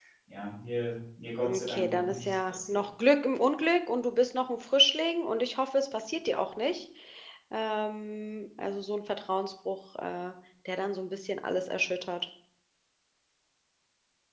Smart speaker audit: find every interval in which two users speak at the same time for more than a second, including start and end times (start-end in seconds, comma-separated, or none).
1.4-2.8